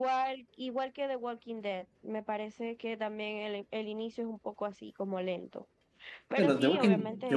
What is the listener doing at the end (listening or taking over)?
taking over